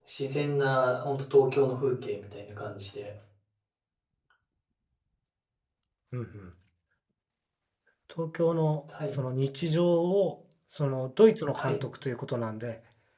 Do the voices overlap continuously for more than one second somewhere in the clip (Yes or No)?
No